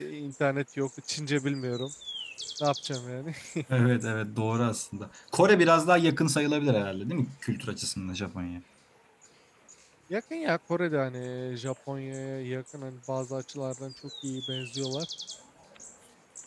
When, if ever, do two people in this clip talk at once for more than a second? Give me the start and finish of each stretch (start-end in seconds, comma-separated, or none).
none